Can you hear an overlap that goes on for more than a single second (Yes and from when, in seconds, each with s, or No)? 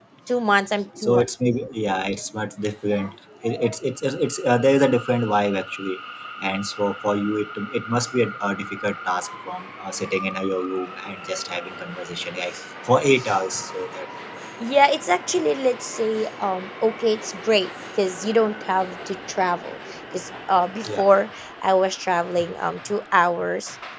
No